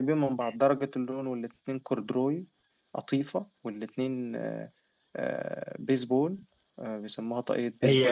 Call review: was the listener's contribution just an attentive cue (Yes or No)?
No